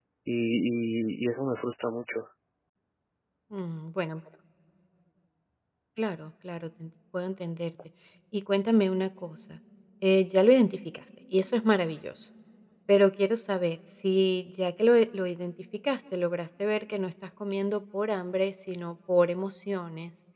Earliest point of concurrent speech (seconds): none

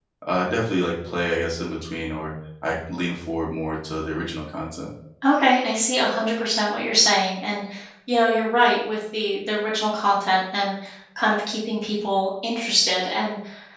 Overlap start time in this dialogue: none

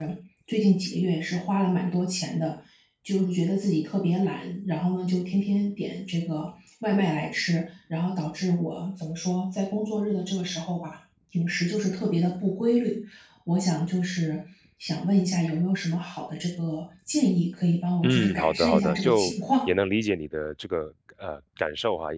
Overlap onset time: 18 s

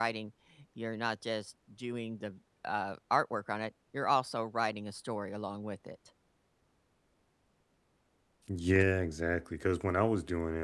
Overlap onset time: none

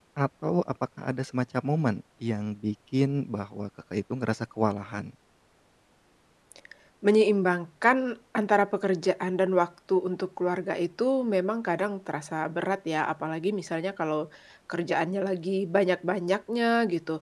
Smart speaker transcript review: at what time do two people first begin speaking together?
none

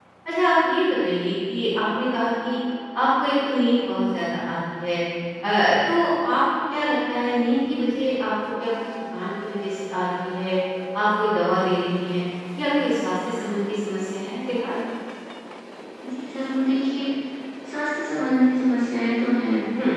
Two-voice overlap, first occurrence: none

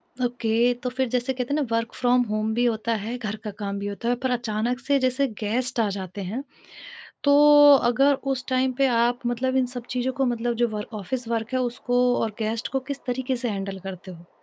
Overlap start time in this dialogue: none

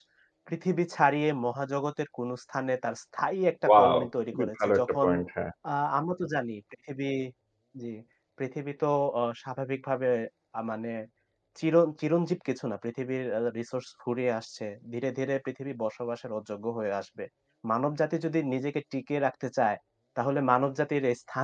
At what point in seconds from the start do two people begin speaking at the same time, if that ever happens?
4 s

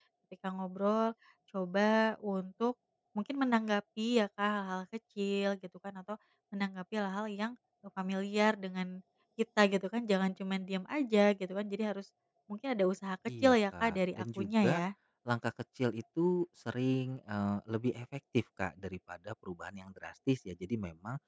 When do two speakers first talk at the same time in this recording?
13 s

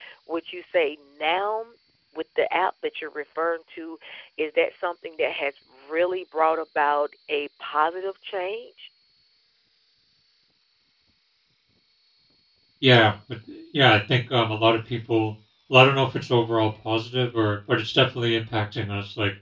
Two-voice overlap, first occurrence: none

